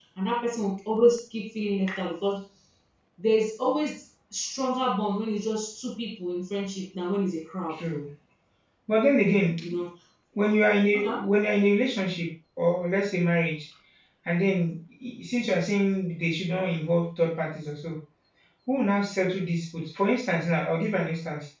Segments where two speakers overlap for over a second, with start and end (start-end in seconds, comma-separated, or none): none